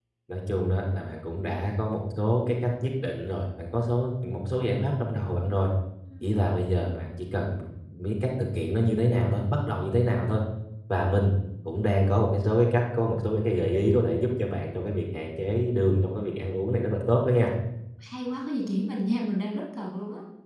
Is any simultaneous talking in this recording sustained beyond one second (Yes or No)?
No